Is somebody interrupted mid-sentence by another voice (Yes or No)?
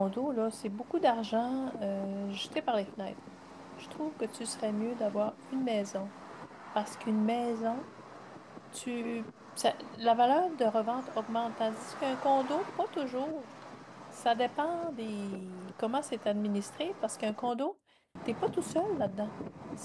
No